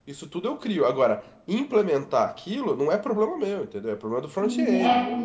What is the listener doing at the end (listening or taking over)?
taking over